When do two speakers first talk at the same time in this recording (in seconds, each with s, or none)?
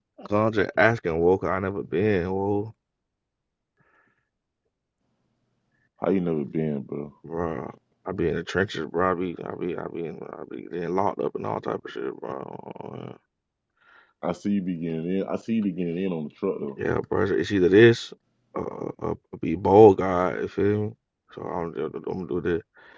none